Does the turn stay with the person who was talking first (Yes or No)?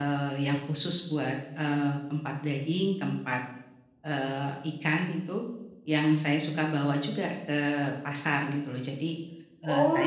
No